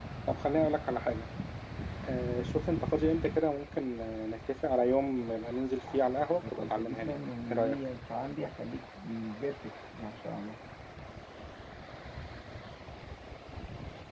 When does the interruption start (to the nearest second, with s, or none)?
6 s